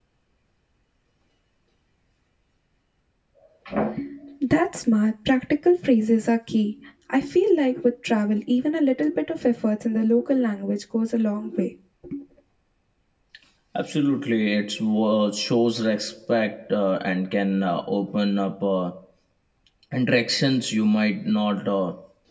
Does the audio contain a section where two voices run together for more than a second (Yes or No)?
No